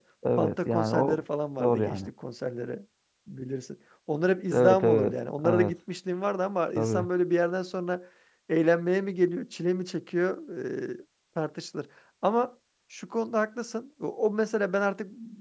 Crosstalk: present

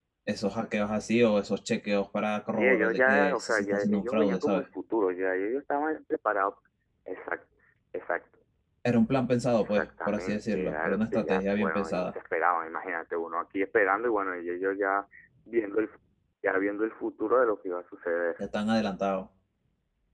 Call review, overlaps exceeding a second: present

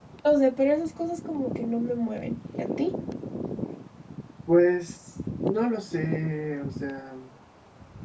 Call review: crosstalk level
none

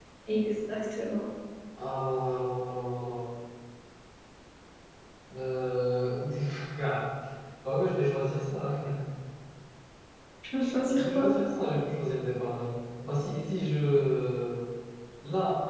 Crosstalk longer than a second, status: none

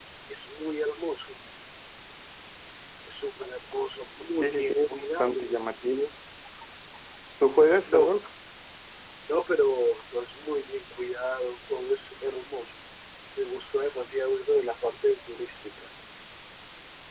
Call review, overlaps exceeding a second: present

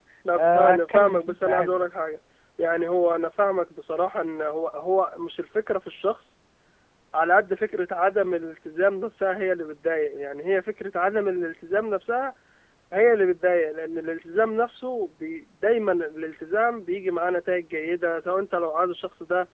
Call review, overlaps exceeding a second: present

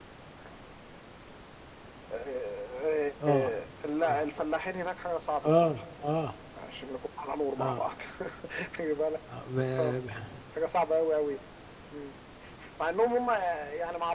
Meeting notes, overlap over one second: none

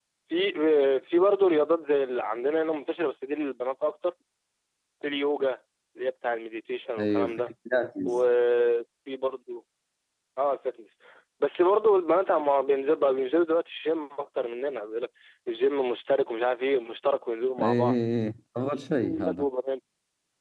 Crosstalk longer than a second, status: none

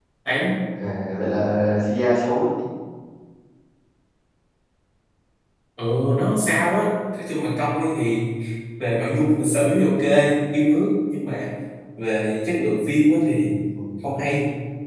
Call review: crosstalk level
none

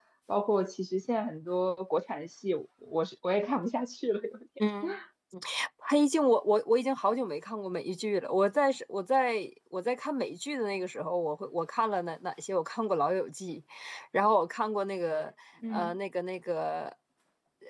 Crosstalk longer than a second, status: none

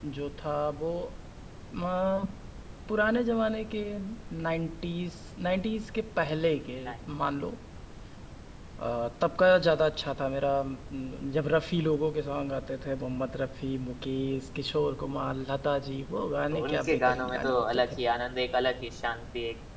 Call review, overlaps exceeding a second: present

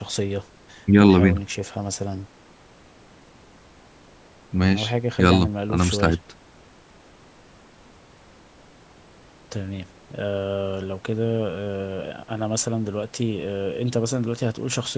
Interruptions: present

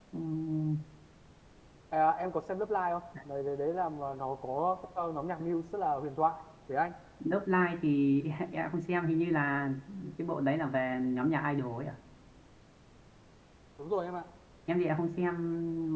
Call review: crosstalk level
none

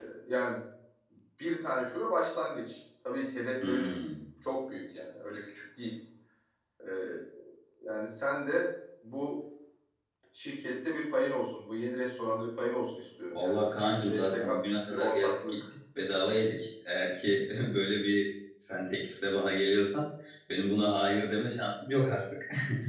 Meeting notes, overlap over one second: present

